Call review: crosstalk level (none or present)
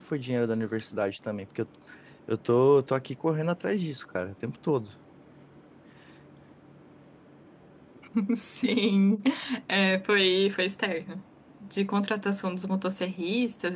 none